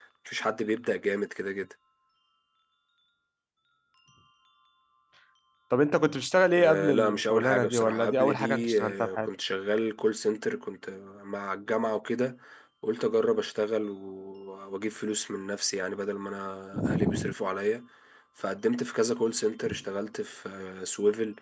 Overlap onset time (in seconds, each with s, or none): 6.6 s